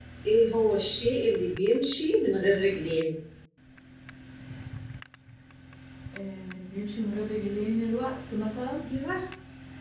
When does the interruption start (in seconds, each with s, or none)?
none